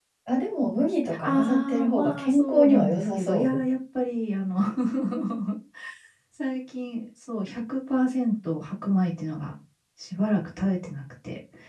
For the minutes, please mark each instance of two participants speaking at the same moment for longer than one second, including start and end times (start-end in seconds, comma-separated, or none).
1.2-3.6